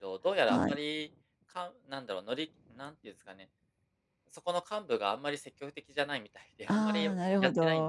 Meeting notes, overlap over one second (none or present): present